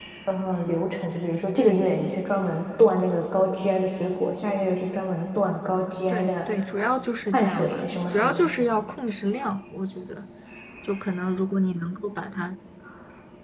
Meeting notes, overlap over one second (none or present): present